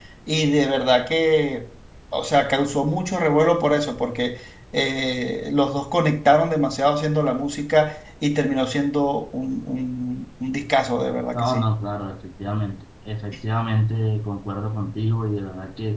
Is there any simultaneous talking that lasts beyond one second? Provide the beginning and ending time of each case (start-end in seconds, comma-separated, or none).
none